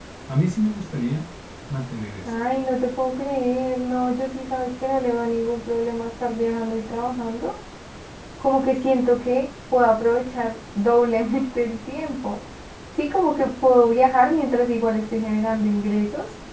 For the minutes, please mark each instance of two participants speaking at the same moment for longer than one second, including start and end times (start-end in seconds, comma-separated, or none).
none